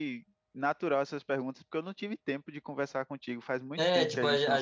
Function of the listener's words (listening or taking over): taking over